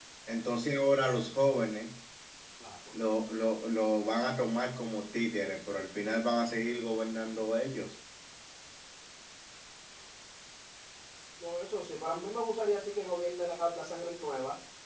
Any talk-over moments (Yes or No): No